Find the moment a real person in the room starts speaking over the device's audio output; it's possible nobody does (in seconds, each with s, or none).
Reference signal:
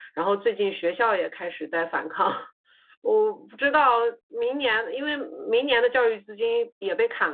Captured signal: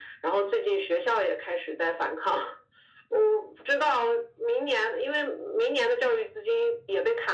none